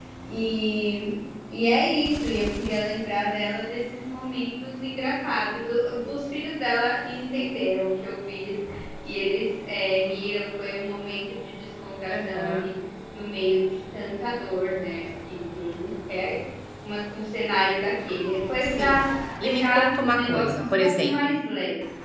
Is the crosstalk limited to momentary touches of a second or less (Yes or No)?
No